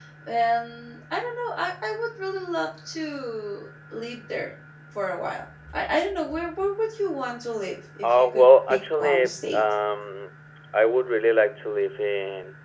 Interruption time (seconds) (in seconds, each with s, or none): 8.0 s